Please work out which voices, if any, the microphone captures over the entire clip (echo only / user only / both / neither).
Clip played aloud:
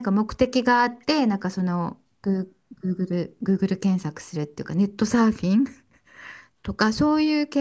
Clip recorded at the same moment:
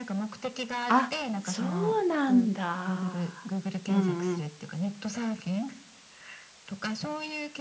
both